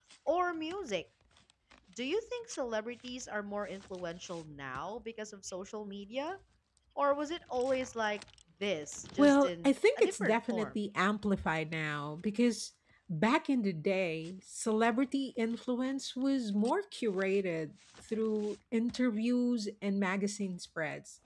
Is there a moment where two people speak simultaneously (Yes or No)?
Yes